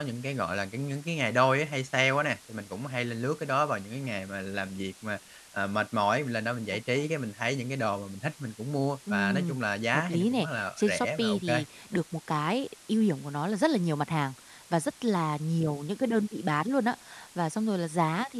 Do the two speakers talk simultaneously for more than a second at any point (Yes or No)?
Yes